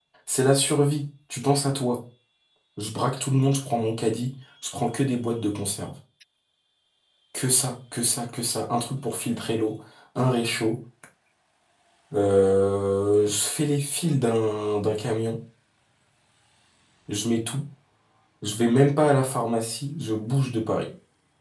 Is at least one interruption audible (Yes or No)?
No